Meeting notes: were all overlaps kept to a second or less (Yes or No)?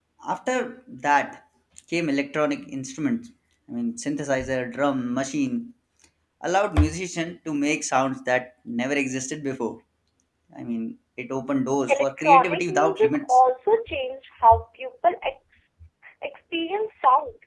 No